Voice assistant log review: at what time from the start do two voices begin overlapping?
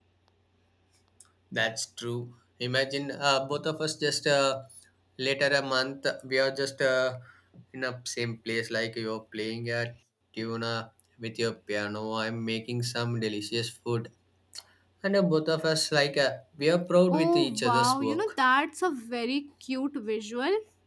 17.1 s

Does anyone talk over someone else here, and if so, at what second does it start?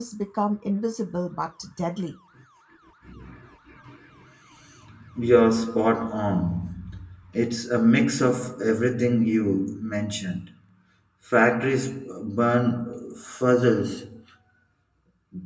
none

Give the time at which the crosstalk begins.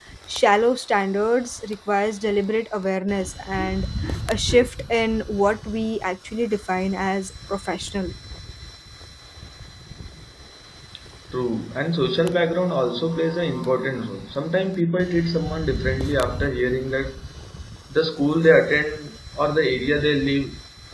none

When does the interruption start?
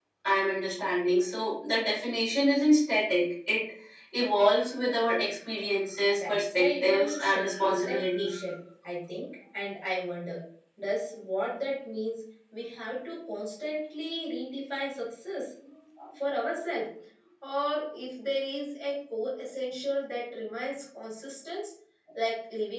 6.1 s

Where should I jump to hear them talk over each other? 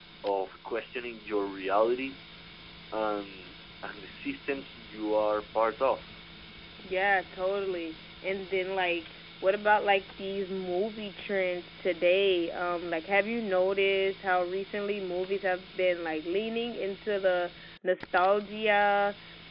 none

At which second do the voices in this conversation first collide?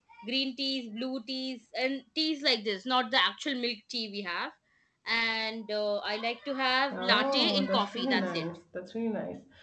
6.9 s

